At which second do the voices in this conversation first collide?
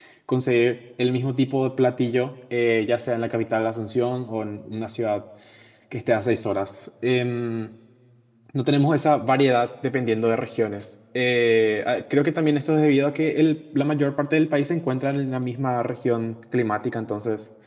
none

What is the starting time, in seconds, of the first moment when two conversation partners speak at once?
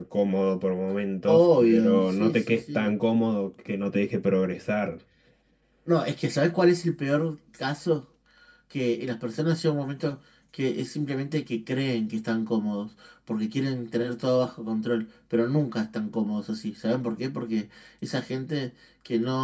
1 s

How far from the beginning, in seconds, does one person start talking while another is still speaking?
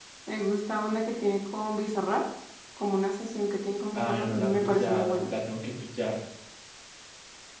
4 s

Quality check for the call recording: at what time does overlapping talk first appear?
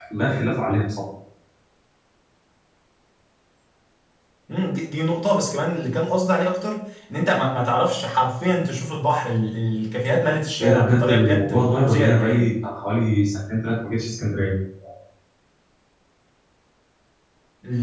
11 s

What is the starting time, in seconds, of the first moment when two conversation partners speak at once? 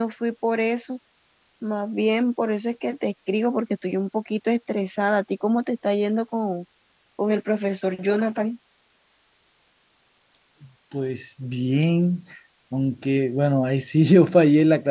none

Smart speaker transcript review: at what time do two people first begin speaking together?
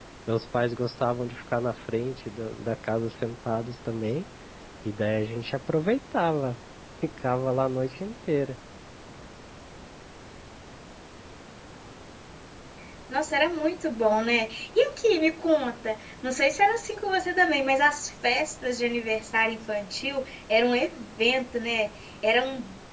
none

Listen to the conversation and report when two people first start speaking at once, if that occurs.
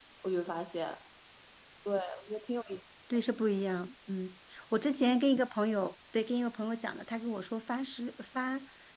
none

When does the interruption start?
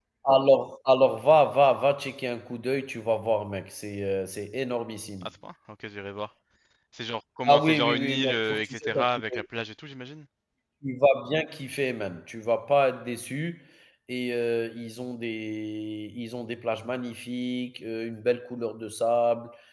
7 s

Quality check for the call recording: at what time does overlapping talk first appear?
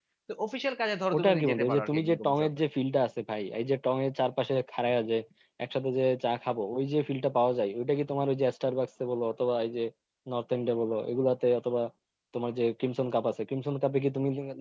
1 s

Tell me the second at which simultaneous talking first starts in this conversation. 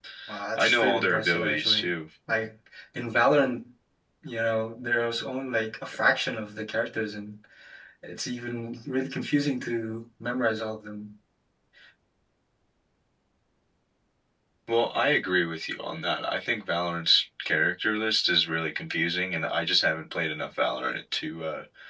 1 s

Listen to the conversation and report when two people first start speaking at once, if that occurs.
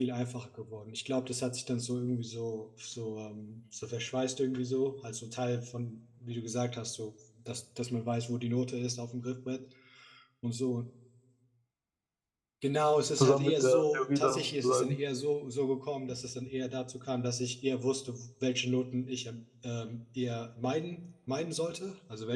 13 s

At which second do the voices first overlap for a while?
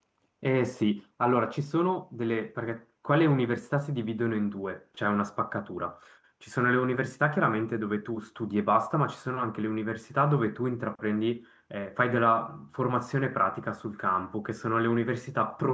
none

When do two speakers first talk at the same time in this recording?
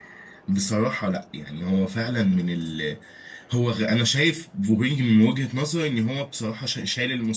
none

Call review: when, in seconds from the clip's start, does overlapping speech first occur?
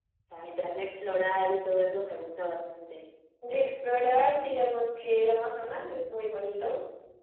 none

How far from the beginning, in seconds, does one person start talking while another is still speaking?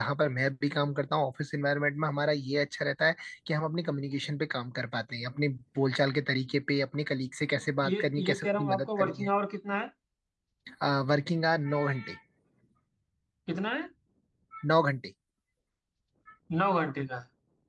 8 s

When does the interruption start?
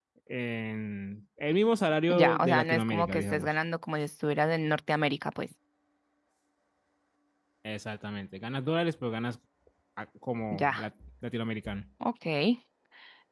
2 s

